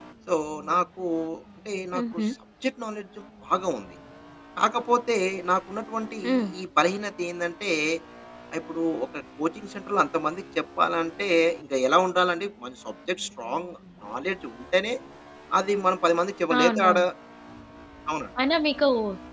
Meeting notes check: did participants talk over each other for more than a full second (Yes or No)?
No